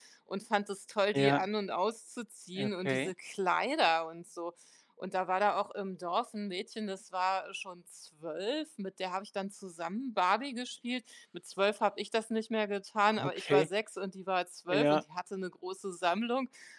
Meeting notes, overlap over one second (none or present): none